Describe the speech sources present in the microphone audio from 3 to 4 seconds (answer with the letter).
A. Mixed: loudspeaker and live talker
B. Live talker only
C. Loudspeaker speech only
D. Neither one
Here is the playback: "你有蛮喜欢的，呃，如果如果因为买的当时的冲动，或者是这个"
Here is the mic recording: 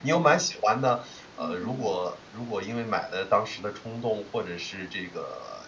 C